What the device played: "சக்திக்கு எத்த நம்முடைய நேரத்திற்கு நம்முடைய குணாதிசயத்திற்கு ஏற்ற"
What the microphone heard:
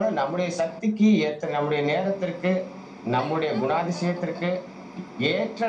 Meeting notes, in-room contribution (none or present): none